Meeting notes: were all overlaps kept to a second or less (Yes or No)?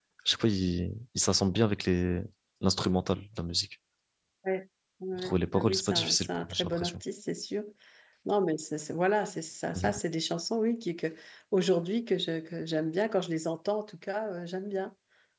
No